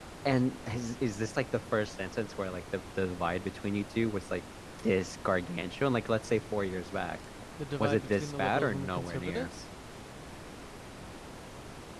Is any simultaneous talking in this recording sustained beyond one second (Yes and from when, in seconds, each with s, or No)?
Yes, from 7.8 s